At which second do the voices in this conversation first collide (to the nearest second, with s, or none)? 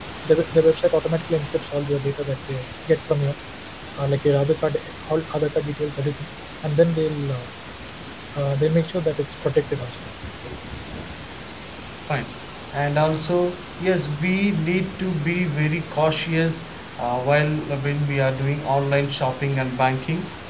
none